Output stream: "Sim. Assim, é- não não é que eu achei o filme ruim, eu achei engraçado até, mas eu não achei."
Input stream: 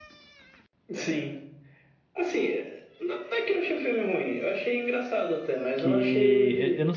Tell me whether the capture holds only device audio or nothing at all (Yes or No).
No